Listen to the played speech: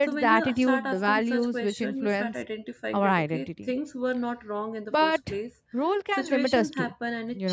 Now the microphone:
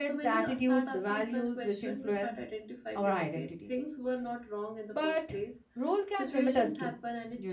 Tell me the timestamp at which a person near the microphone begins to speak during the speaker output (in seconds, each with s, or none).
none